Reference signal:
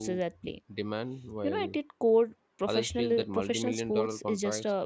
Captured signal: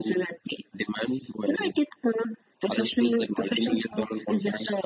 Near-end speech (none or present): none